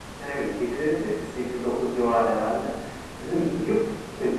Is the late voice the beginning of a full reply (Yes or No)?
No